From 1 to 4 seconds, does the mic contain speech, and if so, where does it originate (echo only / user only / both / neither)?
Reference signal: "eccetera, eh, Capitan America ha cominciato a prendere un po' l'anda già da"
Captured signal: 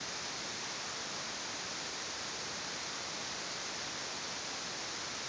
neither